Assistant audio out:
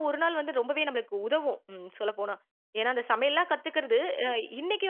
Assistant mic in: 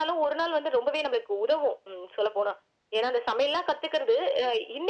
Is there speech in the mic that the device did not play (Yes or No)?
No